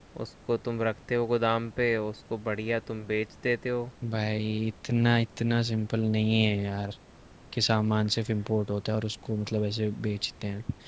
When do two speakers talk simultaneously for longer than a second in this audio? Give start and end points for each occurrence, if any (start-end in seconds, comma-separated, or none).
none